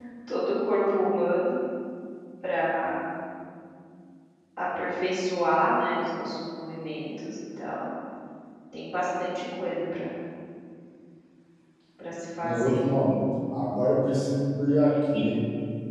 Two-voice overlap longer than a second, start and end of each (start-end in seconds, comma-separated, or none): none